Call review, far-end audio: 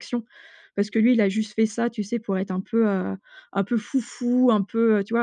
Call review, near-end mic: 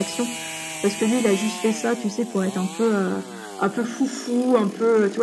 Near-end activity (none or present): none